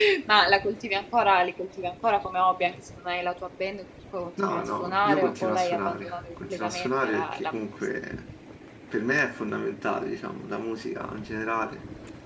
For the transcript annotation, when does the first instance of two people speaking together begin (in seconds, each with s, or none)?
4.4 s